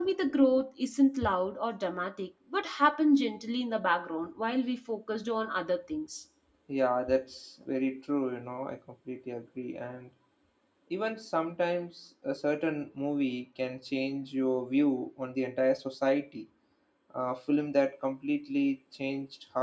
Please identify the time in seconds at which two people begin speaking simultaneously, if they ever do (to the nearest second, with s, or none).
none